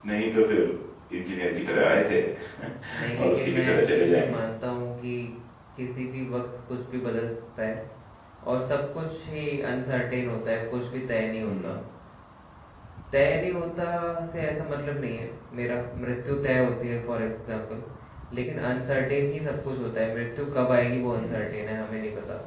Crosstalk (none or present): present